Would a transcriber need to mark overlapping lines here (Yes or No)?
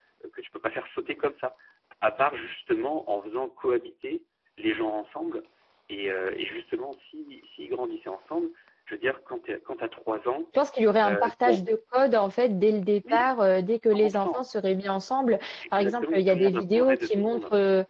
Yes